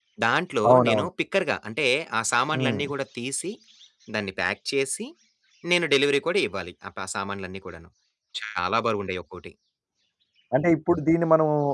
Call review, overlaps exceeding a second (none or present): none